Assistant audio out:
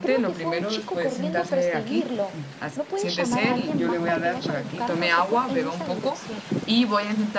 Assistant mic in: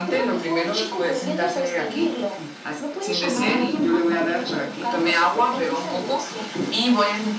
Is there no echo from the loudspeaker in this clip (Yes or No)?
No